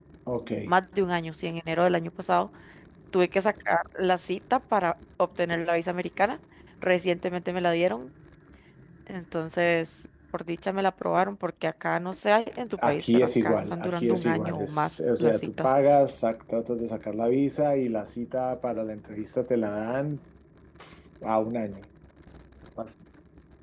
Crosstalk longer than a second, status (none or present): present